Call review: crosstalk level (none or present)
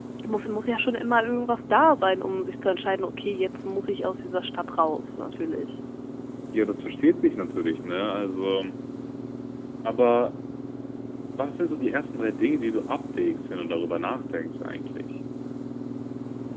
none